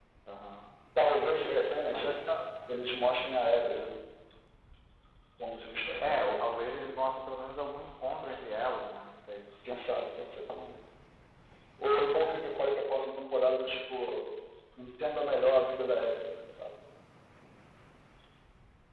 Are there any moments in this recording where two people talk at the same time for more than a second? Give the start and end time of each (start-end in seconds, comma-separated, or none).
none